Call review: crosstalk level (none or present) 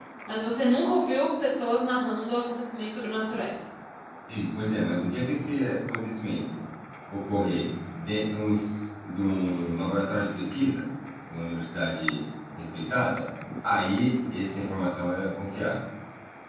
none